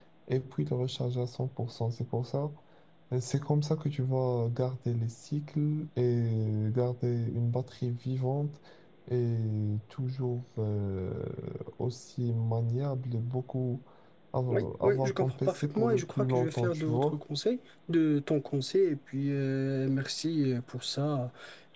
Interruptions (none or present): present